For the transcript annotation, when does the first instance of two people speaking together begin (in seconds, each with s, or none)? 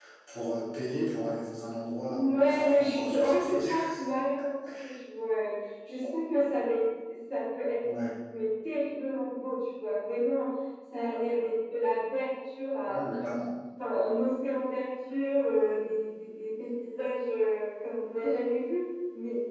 2.1 s